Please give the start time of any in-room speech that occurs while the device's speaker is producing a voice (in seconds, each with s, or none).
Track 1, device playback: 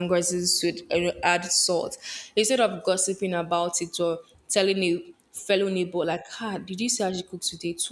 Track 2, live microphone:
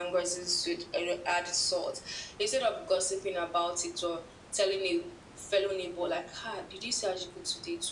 none